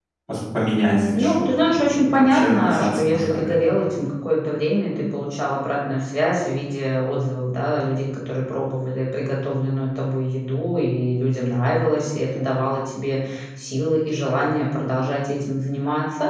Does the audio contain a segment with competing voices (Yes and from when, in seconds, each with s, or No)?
Yes, from 0.7 s